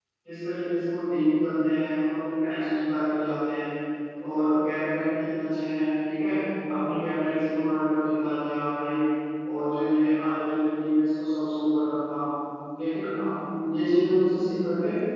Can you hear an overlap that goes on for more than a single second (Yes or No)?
No